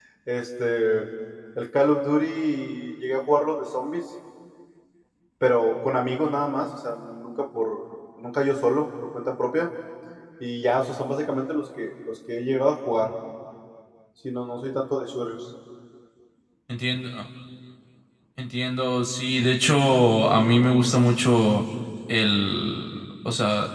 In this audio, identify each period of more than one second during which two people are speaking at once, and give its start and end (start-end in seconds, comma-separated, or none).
none